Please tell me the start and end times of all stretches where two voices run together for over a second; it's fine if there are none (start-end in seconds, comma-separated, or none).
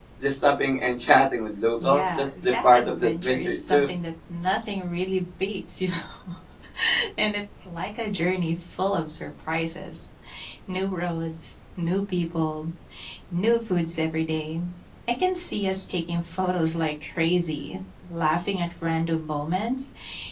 1.8-3.9